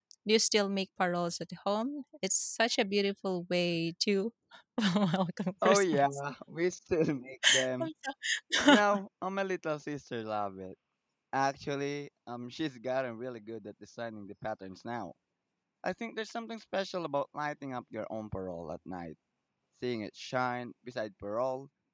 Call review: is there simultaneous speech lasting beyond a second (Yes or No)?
No